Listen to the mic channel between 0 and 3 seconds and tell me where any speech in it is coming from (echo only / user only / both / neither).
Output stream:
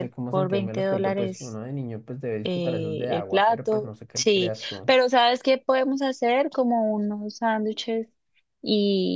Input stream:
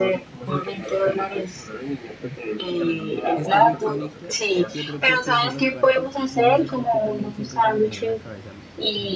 echo only